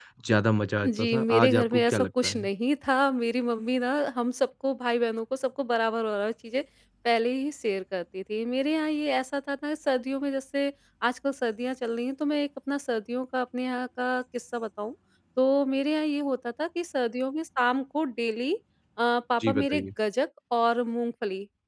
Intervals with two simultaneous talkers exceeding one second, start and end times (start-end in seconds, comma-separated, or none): 0.9-2.5